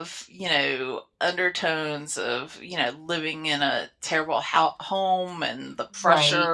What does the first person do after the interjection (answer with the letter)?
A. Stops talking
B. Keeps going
B